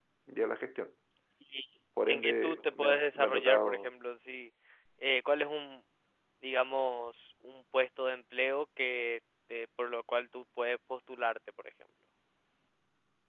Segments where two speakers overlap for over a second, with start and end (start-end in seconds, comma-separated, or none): 2.1-3.9